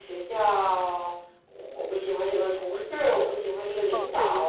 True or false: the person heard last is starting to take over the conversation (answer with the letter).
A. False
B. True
B